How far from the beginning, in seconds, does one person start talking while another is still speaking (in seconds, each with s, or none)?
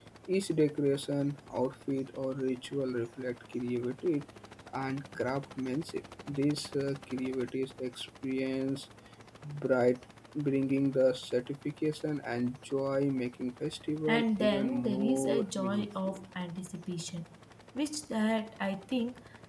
14.1 s